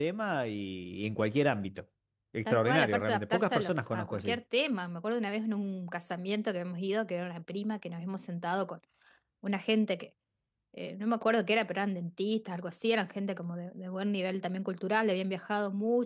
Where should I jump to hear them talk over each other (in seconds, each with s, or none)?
2.5 s